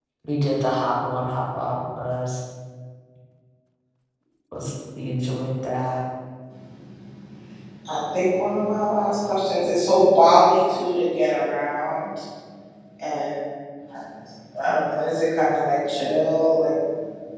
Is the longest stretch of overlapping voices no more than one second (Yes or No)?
Yes